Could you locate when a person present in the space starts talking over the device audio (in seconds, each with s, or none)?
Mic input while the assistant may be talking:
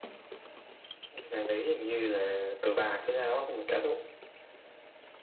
none